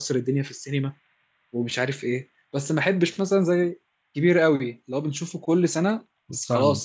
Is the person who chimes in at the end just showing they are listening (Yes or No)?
Yes